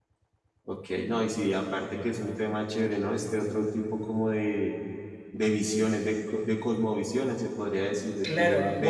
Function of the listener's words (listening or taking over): taking over